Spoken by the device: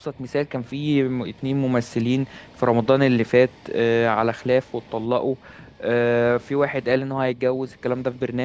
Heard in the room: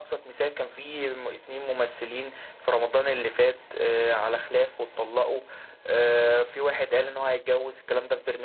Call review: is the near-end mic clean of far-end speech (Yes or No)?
No